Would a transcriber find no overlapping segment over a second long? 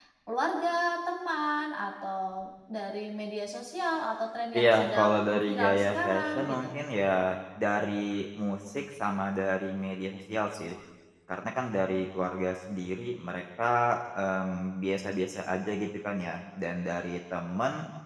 No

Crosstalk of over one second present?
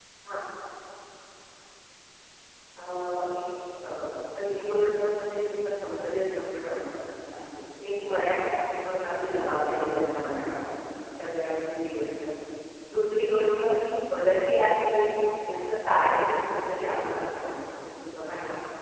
No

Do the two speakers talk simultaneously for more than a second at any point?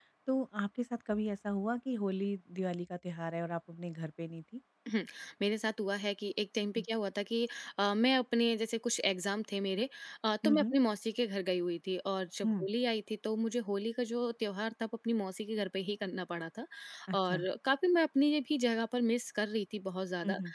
No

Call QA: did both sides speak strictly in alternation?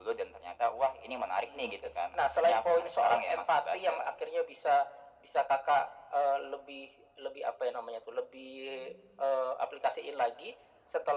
No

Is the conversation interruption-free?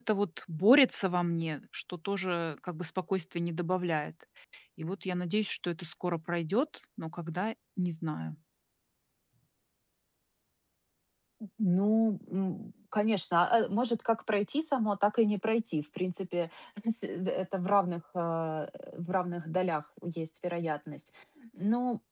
Yes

